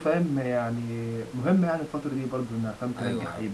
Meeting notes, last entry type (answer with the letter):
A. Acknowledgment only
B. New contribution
B